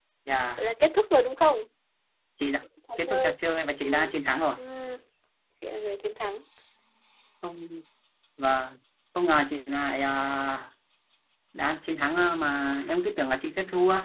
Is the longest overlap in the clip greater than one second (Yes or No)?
No